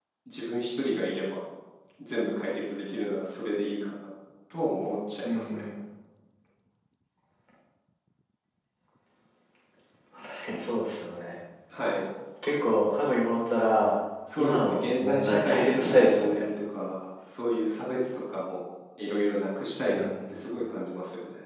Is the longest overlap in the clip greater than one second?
Yes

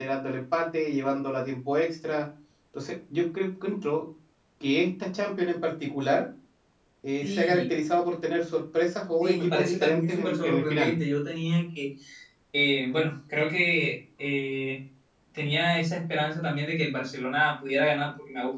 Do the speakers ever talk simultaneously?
Yes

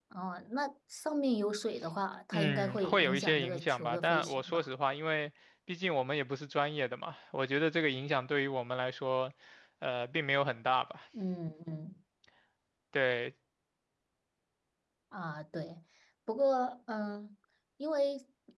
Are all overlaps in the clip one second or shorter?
No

